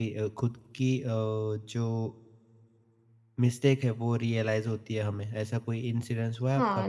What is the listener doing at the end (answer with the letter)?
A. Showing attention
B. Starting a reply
B